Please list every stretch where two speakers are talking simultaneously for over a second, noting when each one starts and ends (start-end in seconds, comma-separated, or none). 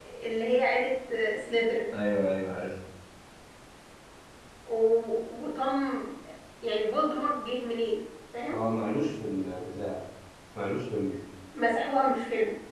none